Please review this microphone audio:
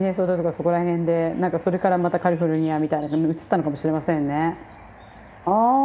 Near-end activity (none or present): present